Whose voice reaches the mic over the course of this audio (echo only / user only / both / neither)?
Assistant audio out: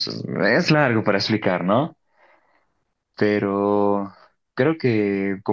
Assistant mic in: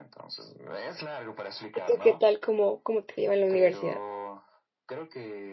both